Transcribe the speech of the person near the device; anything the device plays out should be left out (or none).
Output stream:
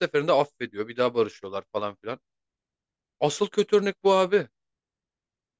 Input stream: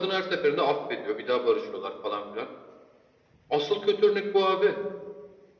none